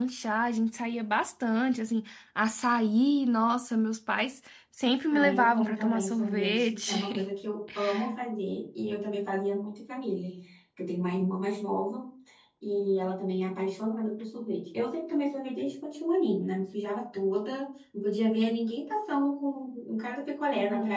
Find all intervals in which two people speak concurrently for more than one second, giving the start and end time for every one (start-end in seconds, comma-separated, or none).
5.1-7.2